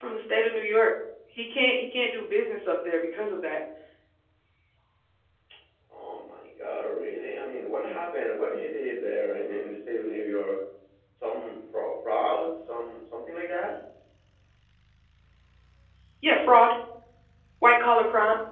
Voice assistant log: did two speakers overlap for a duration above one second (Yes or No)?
No